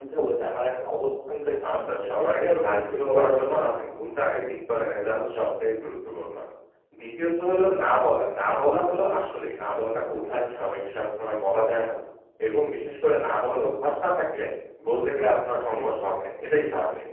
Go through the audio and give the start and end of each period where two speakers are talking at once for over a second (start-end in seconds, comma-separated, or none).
2.4-3.9